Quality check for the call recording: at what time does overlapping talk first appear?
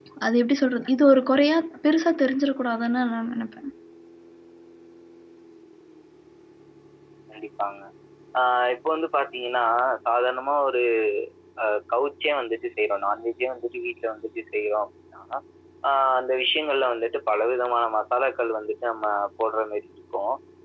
none

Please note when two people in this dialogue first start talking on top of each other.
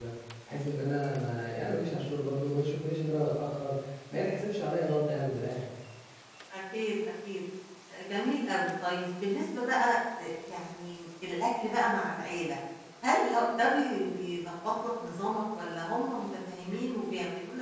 none

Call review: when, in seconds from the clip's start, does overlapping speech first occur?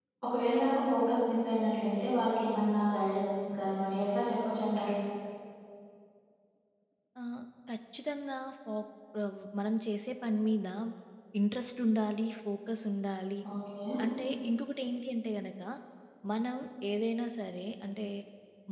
none

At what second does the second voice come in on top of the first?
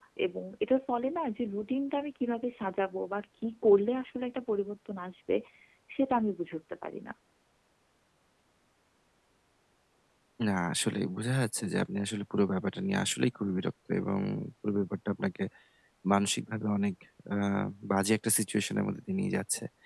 none

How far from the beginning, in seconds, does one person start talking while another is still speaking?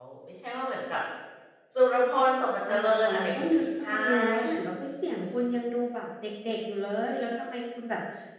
2.7 s

